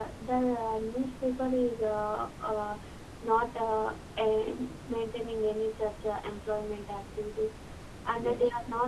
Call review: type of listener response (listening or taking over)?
listening